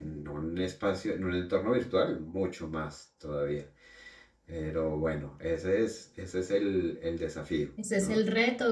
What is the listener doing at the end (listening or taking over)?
taking over